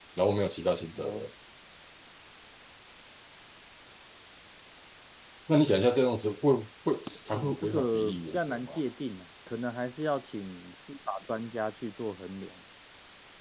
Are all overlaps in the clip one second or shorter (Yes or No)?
No